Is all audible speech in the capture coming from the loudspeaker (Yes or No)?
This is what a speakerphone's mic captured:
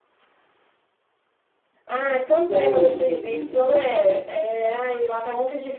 No